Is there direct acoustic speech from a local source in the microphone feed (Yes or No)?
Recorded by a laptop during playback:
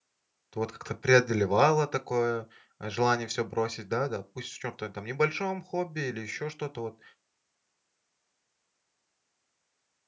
Yes